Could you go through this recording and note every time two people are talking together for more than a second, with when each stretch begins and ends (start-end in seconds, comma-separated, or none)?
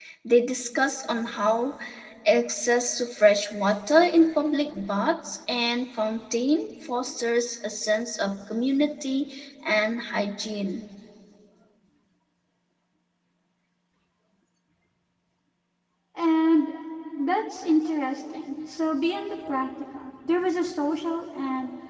none